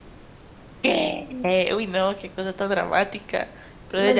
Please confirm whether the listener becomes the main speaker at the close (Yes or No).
Yes